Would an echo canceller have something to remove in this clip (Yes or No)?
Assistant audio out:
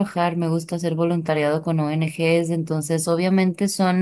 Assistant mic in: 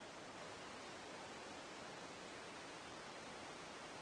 No